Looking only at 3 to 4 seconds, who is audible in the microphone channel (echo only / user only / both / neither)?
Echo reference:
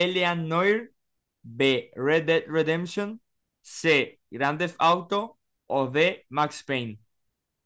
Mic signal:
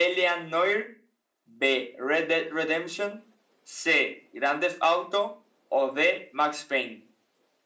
echo only